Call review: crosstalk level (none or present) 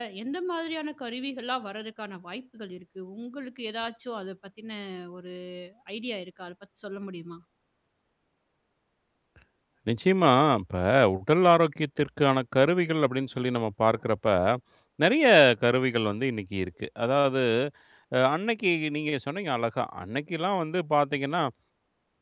none